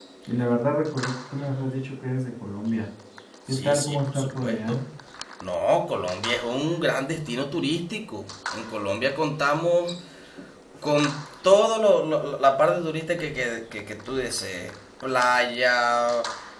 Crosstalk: present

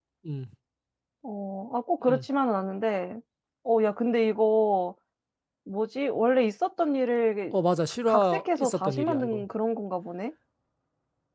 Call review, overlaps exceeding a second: present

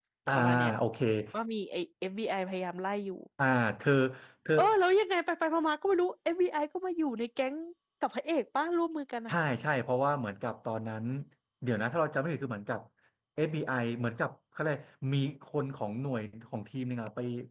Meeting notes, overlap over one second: none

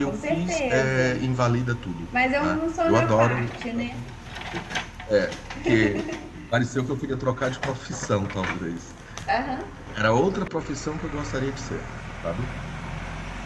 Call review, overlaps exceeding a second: present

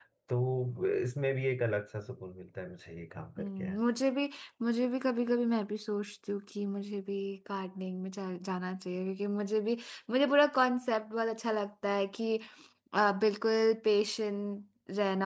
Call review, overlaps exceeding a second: none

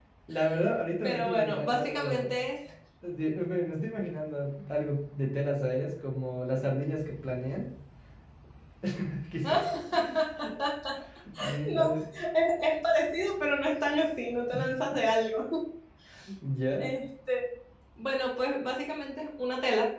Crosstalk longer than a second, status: present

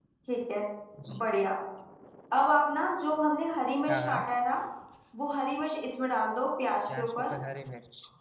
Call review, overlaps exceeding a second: none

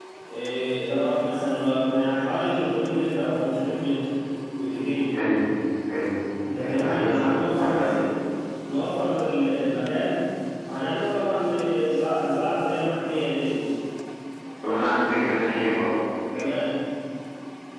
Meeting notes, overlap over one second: present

